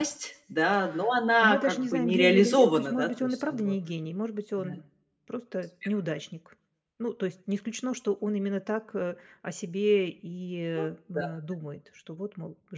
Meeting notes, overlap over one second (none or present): present